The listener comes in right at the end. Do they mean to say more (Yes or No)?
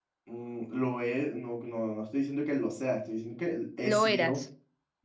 No